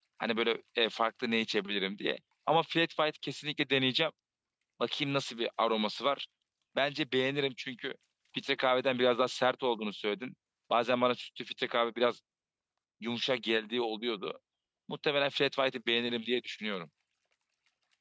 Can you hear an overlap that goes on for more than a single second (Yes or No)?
No